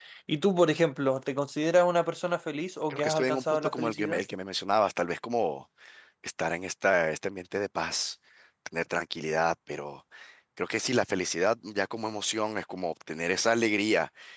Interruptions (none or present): present